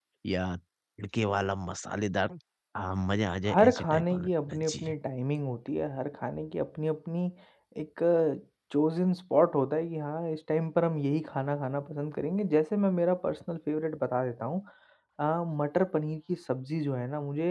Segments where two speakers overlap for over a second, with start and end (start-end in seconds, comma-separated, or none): 3.5-4.9